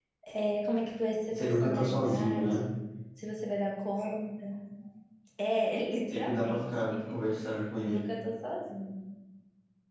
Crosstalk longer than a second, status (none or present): present